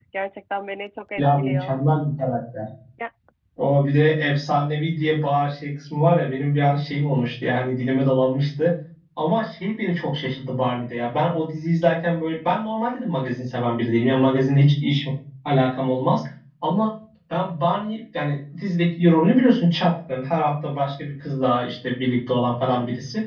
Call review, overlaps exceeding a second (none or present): none